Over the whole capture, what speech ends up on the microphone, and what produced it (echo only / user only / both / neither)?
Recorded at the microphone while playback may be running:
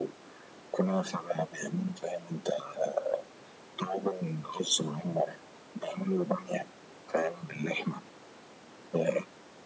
echo only